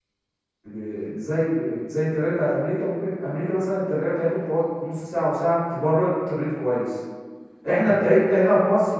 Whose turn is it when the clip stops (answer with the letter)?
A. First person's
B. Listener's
A